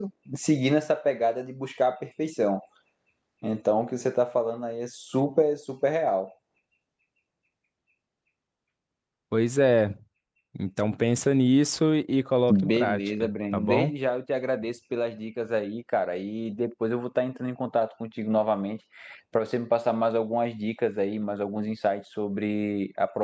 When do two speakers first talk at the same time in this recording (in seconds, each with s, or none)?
12.5 s